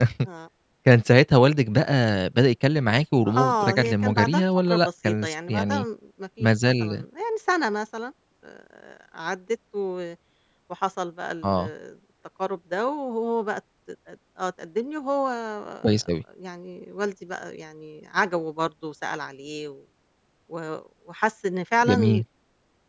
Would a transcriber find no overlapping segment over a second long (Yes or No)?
No